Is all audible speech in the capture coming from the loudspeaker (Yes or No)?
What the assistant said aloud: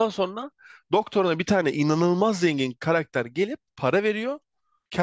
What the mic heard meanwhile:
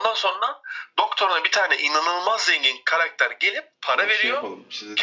No